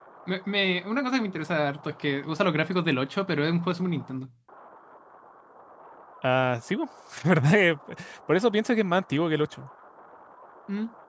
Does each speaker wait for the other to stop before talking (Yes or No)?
Yes